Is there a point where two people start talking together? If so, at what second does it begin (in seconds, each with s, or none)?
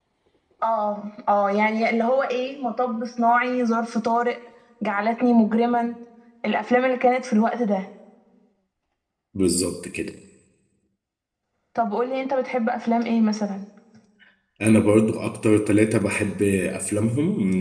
none